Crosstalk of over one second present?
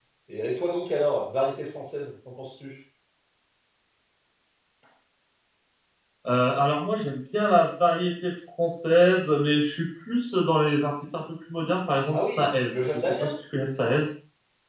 Yes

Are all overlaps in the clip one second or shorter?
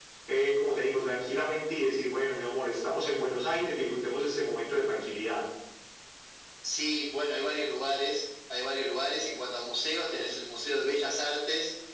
Yes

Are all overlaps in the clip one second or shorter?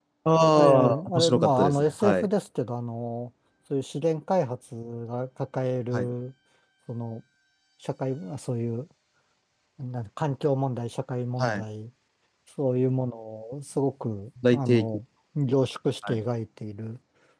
No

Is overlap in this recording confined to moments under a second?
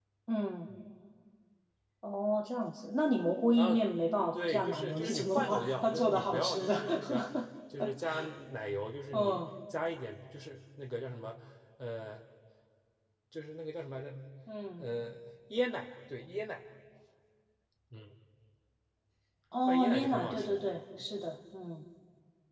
No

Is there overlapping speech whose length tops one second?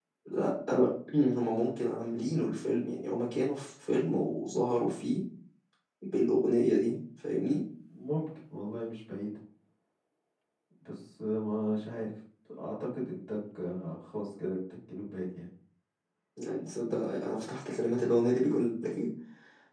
No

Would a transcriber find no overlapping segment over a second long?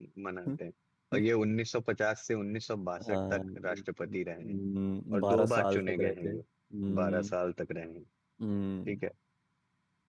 No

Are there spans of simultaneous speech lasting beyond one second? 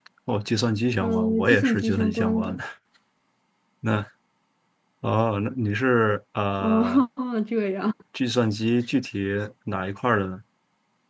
Yes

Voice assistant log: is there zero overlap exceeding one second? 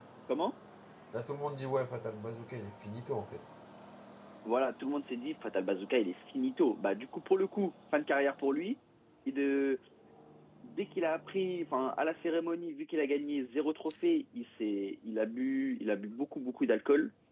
Yes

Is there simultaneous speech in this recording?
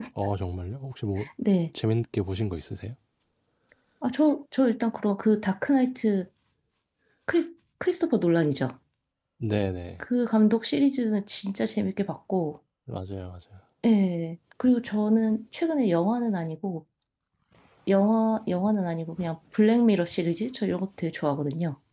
No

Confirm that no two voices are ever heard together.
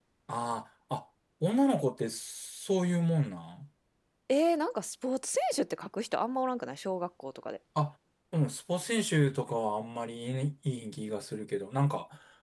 Yes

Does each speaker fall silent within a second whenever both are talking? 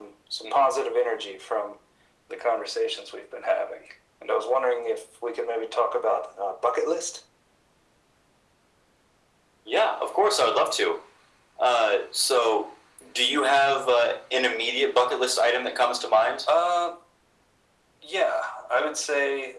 Yes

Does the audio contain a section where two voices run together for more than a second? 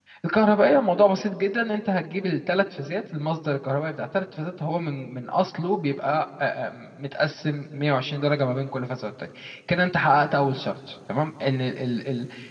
No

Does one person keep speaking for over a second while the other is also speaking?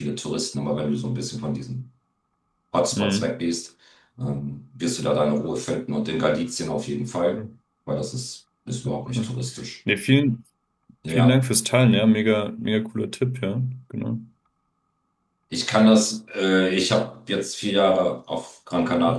No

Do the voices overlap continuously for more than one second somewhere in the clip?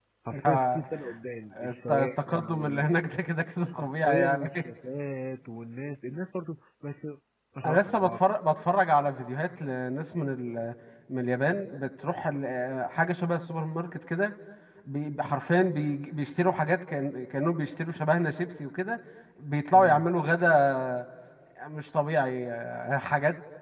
Yes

